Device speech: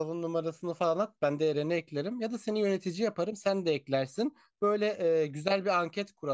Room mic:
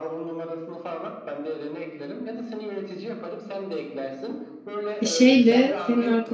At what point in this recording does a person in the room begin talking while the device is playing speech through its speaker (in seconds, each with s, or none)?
5.0 s